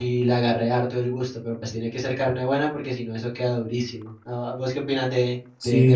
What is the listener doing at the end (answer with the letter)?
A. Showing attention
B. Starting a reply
B